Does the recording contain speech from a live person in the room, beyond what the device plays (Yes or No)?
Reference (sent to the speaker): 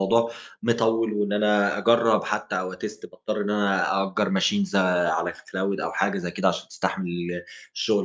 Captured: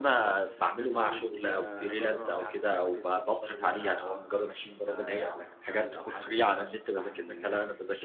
Yes